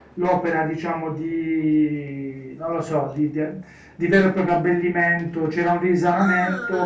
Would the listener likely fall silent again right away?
Yes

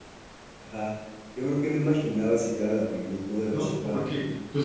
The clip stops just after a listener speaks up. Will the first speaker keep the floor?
No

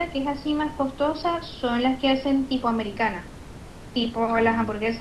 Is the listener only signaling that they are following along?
Yes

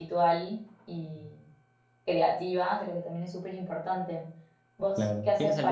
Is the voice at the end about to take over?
Yes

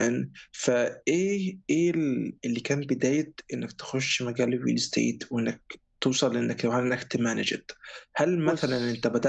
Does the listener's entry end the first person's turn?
No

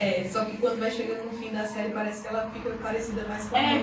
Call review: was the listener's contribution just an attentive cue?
No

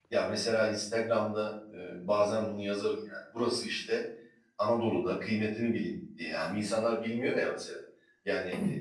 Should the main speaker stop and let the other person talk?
No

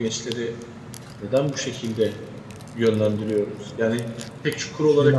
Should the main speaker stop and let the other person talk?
No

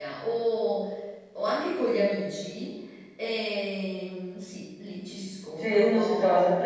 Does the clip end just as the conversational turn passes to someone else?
Yes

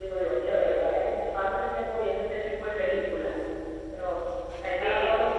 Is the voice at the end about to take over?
Yes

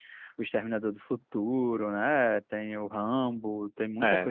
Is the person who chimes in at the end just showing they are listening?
No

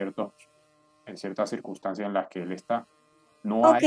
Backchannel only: No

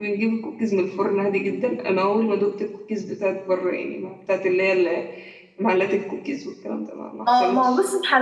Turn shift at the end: Yes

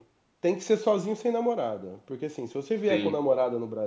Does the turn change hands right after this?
No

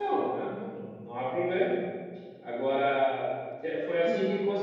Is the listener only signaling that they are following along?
Yes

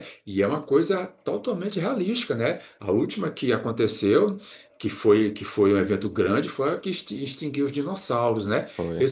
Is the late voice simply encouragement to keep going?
Yes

